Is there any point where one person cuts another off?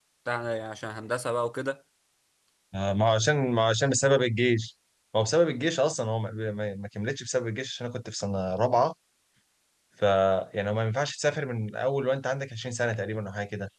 No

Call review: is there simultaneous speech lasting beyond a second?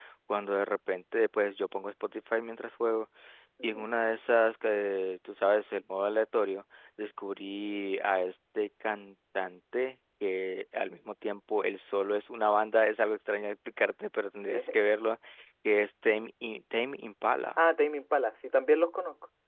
No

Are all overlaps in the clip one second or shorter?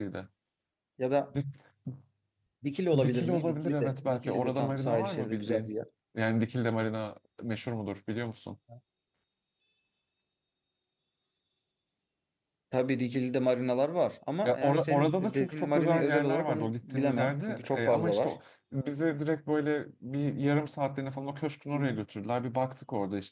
No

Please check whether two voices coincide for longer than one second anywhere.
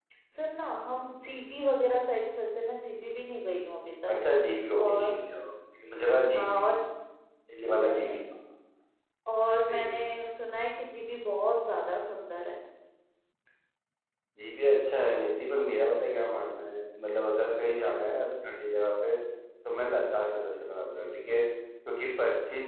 No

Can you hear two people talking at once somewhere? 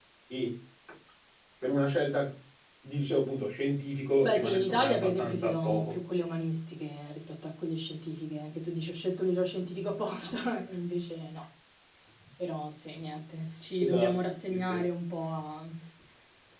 Yes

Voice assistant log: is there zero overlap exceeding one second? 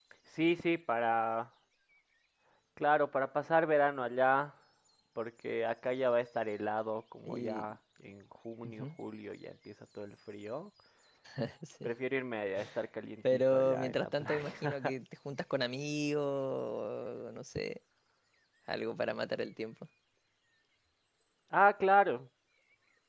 No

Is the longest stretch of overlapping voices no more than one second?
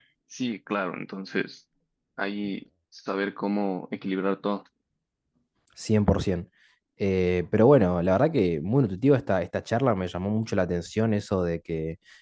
Yes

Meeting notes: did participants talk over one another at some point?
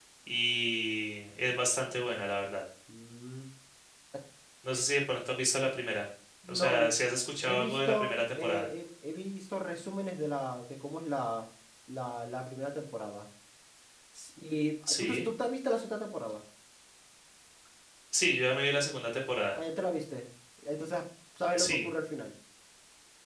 Yes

